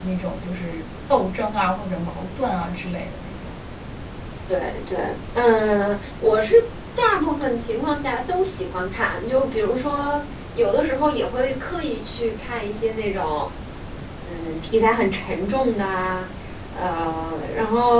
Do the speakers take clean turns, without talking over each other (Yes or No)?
Yes